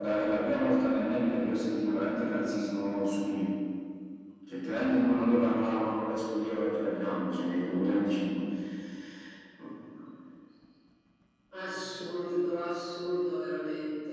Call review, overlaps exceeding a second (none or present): none